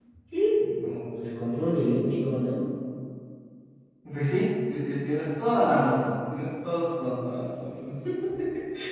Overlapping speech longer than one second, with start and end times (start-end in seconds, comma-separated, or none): none